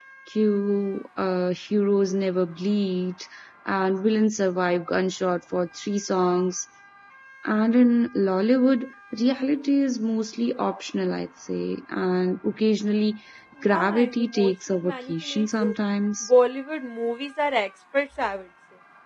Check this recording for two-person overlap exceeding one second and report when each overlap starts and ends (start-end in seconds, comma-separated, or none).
13.6-15.8